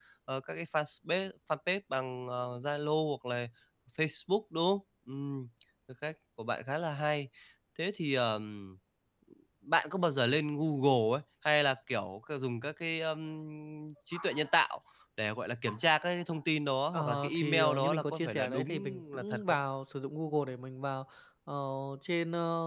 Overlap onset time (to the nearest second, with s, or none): 17 s